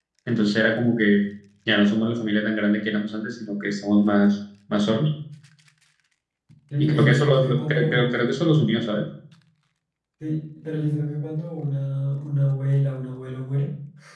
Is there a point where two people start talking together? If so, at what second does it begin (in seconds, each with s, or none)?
6.8 s